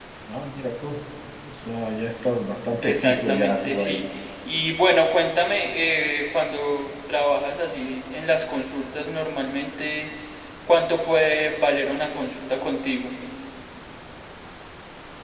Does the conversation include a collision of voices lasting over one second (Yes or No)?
Yes